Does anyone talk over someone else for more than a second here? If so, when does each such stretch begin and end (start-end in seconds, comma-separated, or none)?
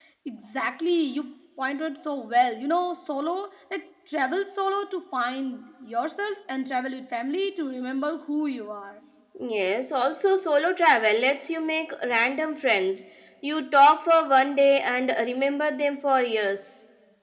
none